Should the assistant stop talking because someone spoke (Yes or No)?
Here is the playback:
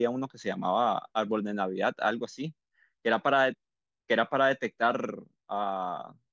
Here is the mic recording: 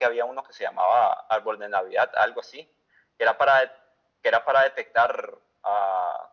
No